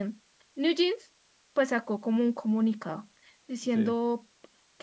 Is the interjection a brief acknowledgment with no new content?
Yes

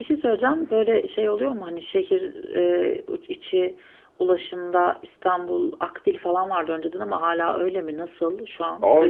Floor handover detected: Yes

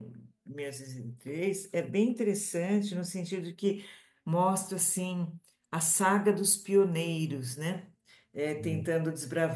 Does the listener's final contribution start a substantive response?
No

